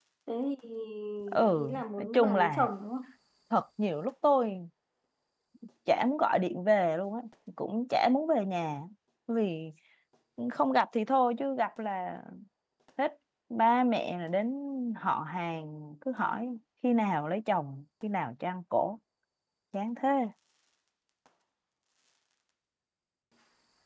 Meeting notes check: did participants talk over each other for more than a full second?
Yes, from 1.5 s

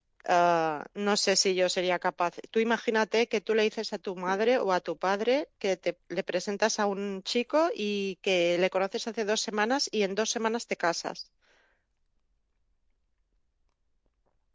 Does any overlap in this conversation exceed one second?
No

